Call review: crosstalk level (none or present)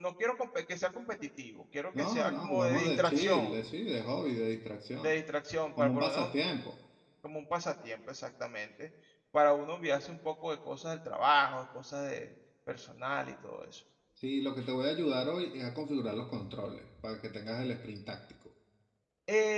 present